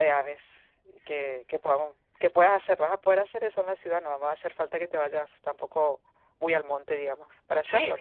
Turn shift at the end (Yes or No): Yes